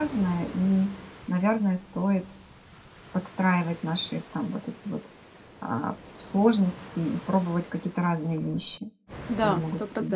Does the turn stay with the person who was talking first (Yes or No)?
No